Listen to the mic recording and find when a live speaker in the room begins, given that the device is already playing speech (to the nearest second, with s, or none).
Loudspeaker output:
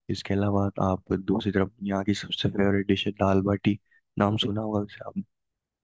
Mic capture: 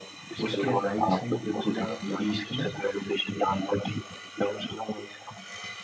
0 s